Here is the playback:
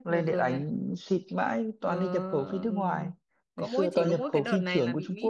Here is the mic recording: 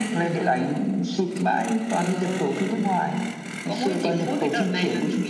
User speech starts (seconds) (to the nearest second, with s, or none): none